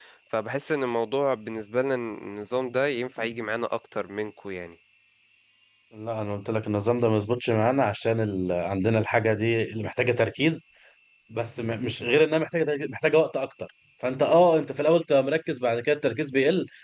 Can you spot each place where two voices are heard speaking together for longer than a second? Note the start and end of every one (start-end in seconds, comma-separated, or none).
none